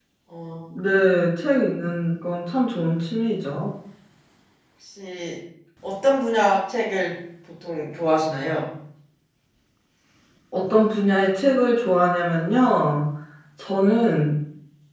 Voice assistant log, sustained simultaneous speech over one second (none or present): none